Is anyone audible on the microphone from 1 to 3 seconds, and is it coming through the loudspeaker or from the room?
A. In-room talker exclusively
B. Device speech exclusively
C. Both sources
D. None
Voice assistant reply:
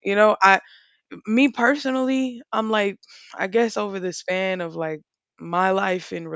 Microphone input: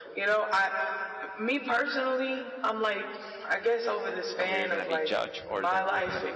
B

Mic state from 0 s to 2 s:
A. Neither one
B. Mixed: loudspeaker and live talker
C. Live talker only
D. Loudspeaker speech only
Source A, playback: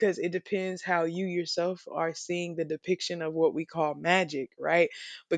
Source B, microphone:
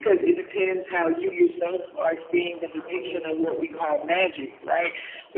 D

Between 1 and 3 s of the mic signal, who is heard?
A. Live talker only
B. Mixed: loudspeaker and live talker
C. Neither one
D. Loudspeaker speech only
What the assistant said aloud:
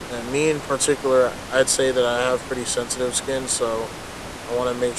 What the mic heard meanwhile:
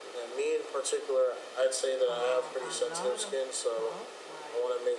B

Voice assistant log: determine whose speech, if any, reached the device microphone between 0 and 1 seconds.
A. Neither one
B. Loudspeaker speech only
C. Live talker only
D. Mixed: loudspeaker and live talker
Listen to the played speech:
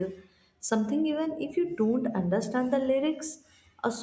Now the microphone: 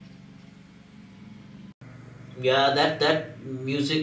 A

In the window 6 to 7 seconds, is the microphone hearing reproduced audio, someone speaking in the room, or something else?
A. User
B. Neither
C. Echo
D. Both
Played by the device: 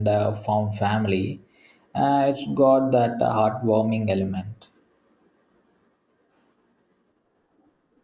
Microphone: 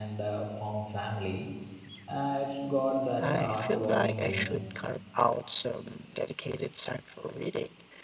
A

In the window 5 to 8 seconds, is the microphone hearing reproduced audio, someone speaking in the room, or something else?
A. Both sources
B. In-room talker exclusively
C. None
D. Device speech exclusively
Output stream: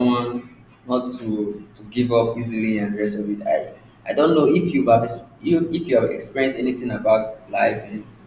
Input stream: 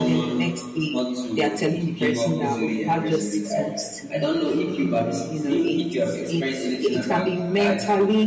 A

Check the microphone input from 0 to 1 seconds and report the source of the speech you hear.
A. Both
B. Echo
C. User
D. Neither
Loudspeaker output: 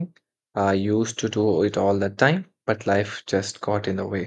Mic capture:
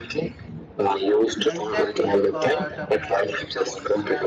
B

